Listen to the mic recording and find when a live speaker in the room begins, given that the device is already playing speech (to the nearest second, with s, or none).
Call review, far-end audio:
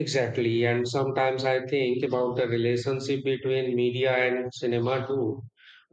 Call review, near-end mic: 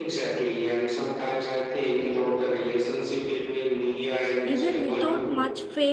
5 s